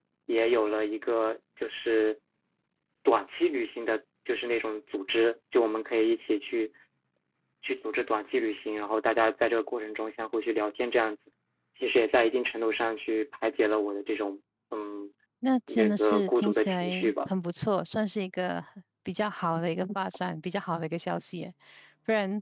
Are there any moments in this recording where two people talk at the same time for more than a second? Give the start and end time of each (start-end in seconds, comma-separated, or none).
15.7-17.3